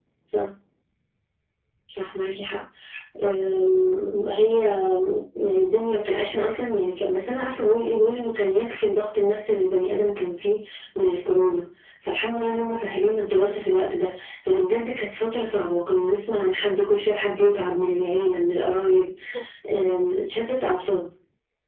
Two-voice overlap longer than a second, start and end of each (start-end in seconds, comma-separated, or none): none